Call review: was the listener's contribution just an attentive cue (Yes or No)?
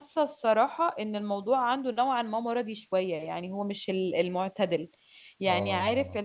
Yes